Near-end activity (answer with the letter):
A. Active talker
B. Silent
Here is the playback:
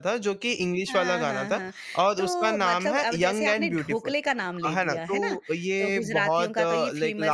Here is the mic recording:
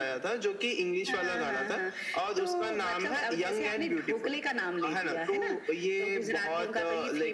B